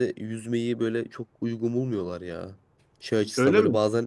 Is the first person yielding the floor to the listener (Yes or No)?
No